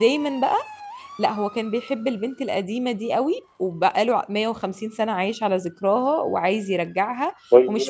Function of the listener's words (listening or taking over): listening